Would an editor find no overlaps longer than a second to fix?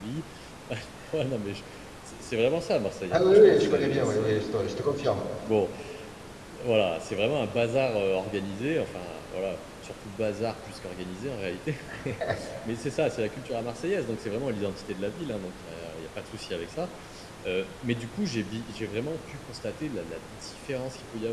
No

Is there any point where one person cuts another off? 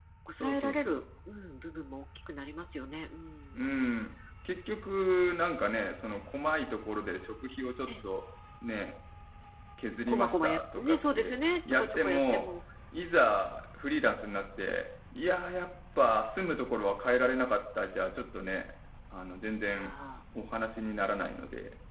Yes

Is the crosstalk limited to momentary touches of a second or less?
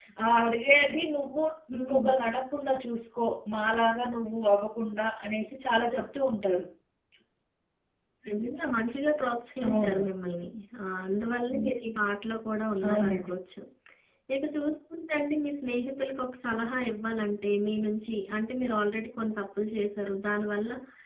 Yes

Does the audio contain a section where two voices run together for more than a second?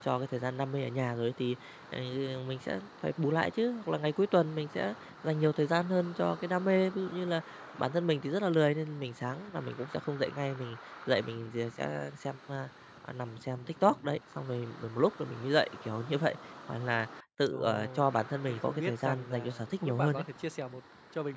Yes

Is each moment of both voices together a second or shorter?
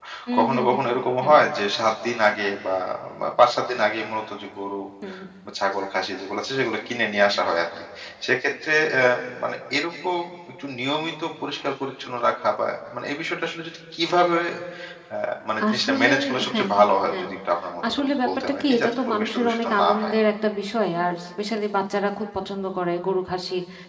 No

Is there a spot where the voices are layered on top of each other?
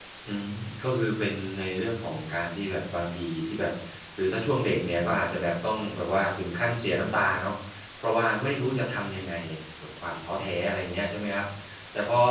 No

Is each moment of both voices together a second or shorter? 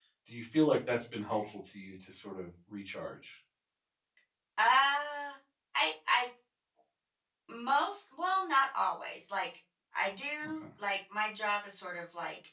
Yes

